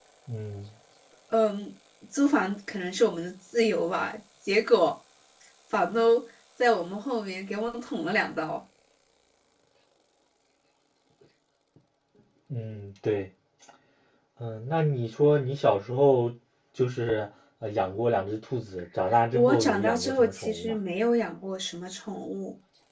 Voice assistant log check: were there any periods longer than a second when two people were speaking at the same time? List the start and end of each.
19.3-20.8

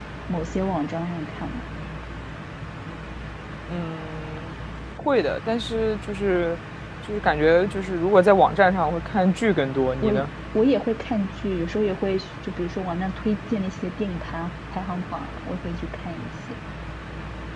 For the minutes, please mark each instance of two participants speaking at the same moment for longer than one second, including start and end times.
none

